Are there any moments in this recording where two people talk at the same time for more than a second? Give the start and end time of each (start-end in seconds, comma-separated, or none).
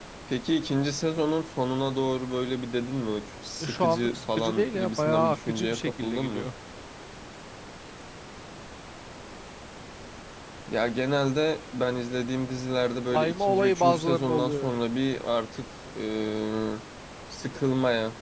3.6-6.5, 13.1-14.8